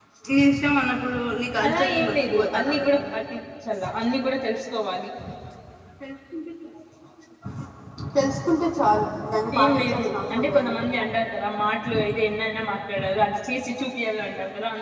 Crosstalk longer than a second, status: present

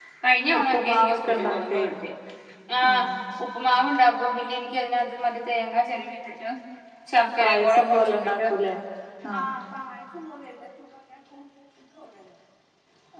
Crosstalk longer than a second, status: present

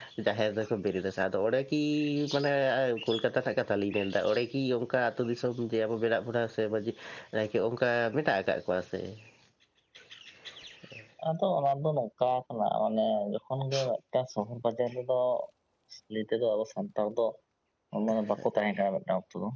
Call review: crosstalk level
none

